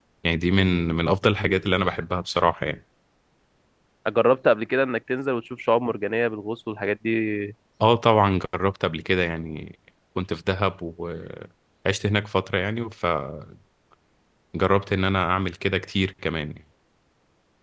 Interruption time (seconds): none

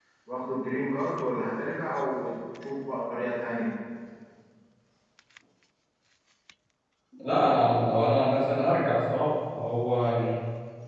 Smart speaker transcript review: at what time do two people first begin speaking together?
none

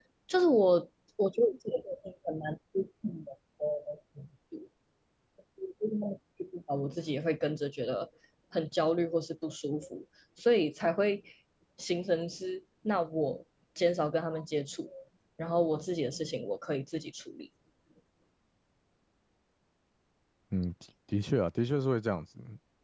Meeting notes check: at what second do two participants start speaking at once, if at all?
none

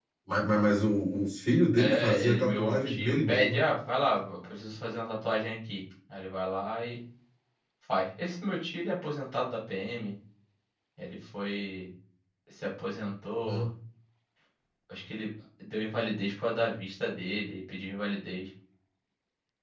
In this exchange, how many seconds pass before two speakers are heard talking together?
1.8 s

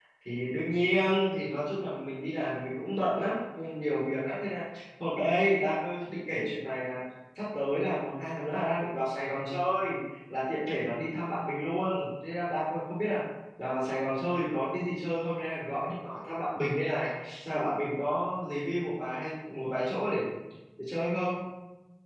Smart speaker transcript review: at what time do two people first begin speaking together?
none

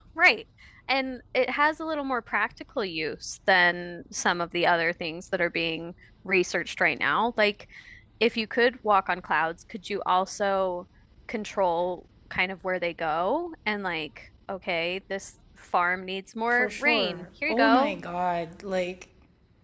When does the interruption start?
16.5 s

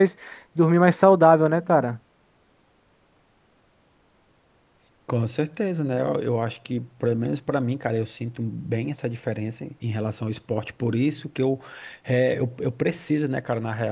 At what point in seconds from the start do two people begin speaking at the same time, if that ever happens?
none

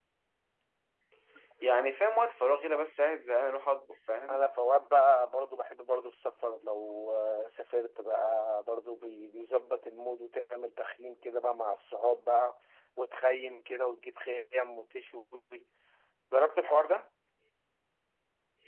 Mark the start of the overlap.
none

